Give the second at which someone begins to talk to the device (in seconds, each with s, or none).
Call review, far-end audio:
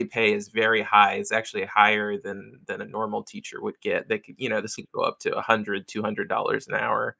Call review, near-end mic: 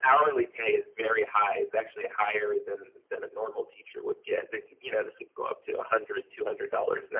none